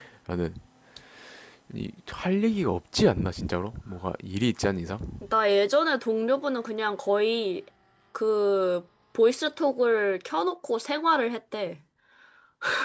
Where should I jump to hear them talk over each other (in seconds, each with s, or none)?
none